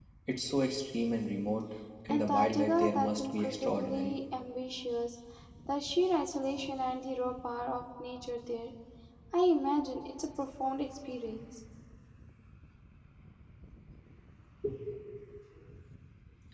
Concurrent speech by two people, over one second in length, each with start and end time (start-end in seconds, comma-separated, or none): 2.1-4.2